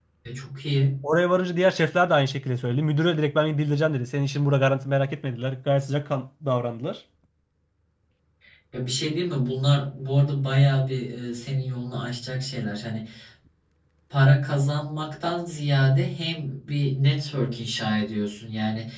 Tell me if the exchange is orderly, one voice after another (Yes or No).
Yes